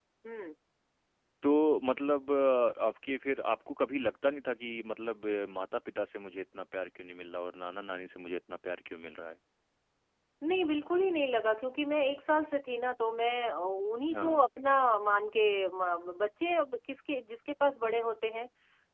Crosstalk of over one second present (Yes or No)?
No